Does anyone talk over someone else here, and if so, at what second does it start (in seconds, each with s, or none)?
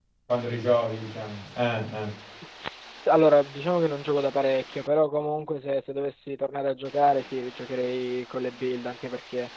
none